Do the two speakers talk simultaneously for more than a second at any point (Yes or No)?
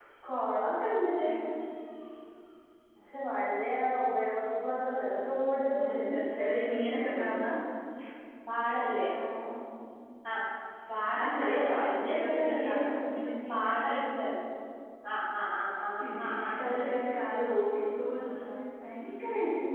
Yes